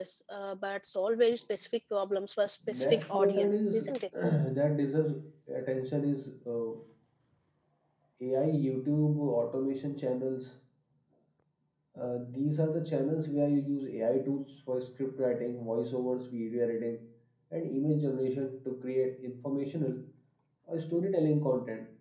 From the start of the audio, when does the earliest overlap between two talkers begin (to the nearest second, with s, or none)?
3 s